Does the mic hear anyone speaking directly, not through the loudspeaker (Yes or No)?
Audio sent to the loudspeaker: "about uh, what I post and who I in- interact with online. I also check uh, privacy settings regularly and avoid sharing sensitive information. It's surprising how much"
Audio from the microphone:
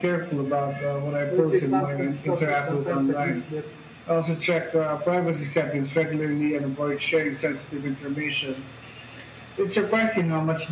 Yes